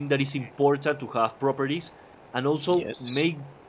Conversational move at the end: listening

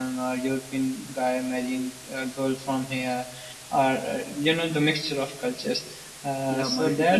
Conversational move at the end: taking over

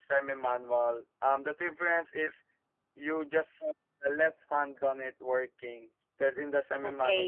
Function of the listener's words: taking over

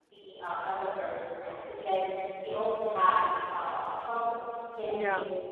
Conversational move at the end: listening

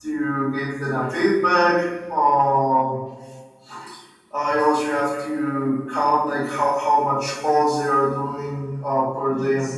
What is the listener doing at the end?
listening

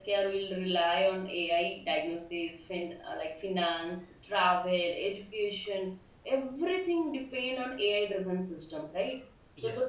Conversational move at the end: taking over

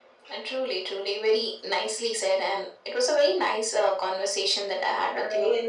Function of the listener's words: taking over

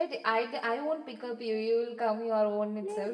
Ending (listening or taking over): taking over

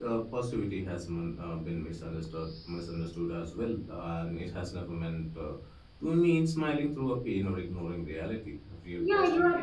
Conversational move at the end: taking over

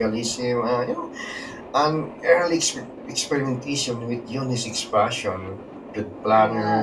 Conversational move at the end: listening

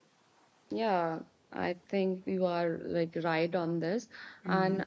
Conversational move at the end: listening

